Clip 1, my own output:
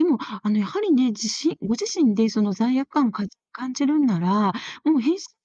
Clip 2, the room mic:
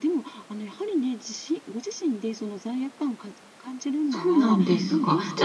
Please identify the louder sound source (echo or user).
user